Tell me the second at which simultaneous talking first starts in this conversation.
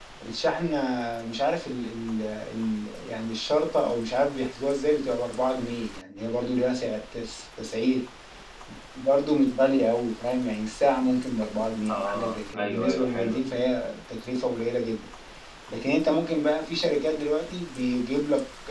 11.9 s

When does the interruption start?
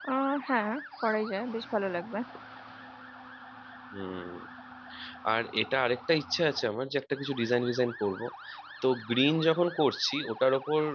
none

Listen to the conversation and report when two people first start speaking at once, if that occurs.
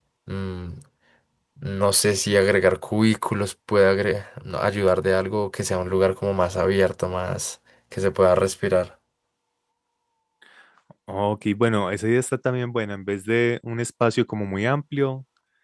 none

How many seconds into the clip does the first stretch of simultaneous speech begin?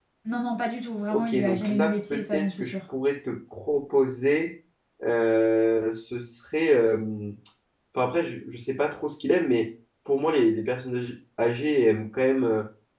1.1 s

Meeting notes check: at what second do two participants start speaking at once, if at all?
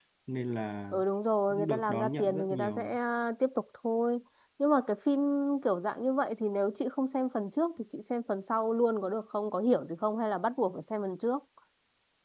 1.5 s

